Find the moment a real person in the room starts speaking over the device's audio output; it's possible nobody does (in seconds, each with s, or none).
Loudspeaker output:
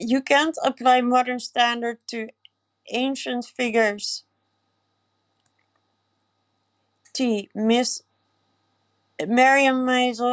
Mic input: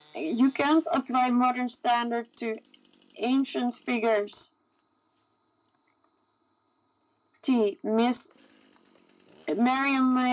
none